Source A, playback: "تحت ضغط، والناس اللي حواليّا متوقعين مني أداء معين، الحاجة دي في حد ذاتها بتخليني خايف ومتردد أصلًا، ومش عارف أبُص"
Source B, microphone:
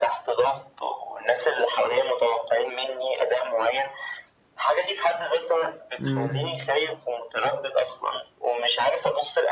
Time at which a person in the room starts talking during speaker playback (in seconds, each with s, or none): 6.0 s